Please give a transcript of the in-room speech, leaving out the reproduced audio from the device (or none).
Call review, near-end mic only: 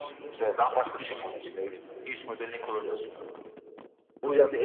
yurt dışına gittim.